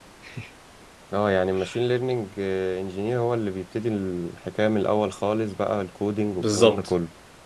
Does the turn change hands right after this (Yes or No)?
Yes